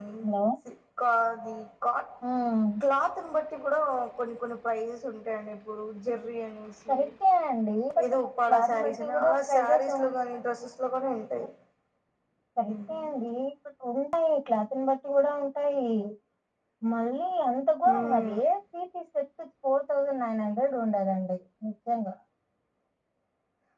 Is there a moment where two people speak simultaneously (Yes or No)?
Yes